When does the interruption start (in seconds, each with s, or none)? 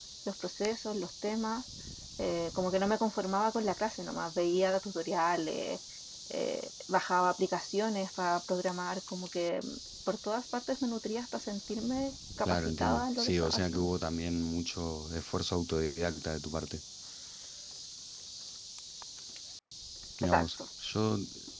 12.4 s